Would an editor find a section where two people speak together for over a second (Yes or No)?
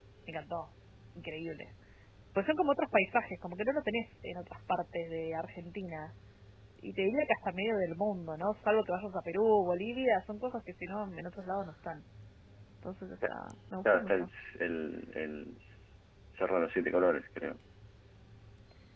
No